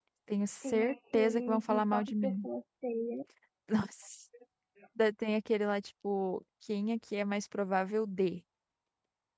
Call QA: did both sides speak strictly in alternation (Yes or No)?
No